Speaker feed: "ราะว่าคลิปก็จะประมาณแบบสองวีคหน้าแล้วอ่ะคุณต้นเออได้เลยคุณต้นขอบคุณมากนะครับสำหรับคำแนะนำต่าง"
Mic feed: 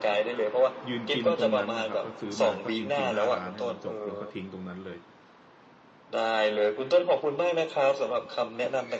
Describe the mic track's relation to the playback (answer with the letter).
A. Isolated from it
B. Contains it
B